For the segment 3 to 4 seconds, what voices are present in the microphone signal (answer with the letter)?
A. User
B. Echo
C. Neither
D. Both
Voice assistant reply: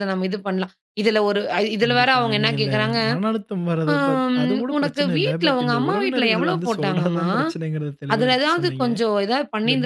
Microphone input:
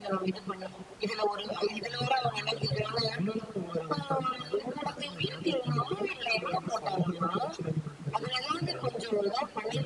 B